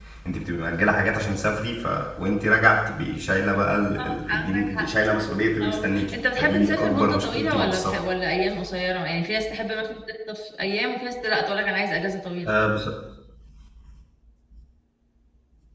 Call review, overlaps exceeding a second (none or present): present